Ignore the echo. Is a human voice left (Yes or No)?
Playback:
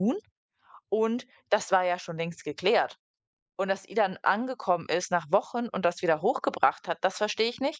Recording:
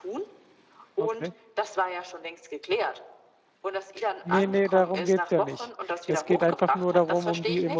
Yes